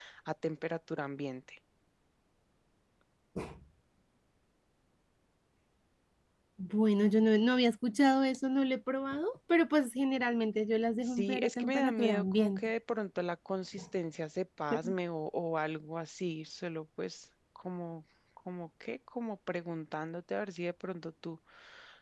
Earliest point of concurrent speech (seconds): 11.0 s

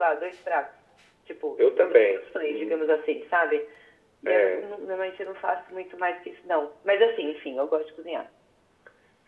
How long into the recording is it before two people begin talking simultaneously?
1.6 s

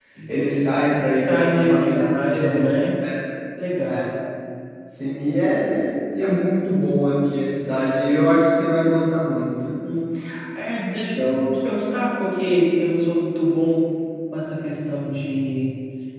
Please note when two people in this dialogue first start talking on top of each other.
1.3 s

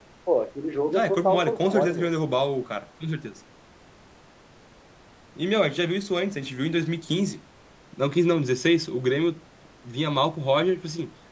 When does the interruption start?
0.9 s

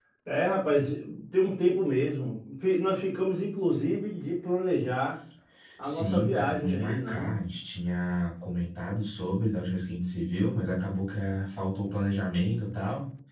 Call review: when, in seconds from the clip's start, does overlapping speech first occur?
5.8 s

